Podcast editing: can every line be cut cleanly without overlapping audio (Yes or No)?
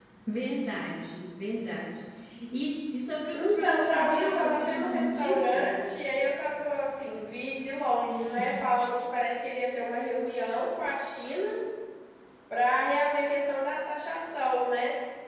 No